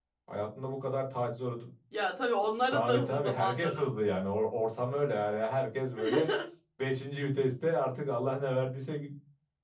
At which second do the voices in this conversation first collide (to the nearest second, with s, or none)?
3 s